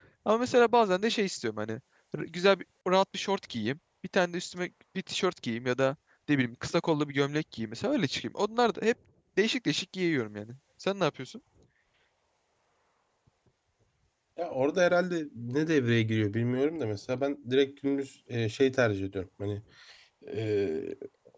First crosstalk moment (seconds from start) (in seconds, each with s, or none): none